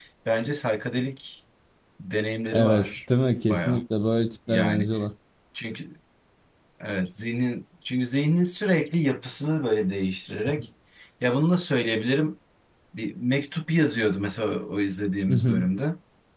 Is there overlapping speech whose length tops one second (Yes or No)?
No